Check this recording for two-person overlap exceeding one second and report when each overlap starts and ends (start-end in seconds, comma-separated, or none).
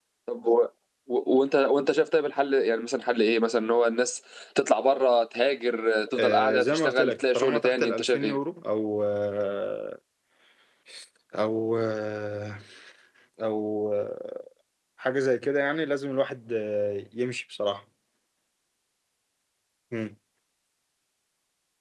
6.2-8.4